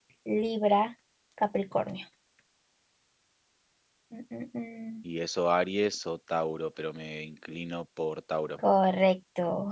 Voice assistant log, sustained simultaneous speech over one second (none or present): none